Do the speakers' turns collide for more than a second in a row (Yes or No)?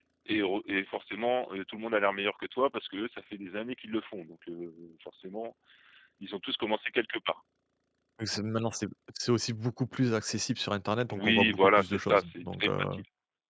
Yes